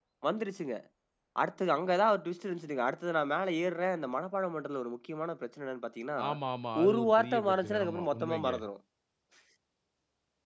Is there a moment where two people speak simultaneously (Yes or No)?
Yes